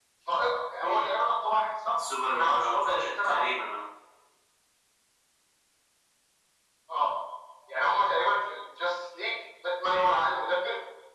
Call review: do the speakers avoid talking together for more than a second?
No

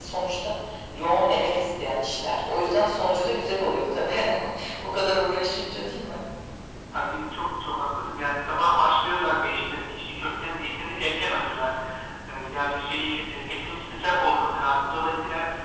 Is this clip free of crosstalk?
Yes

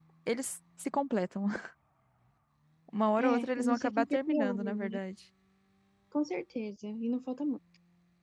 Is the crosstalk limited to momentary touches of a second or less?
No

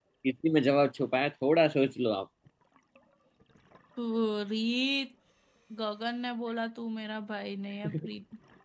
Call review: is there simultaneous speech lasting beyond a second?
No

